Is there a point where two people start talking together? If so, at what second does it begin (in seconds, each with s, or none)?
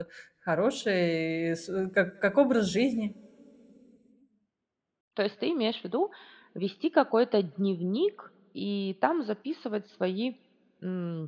none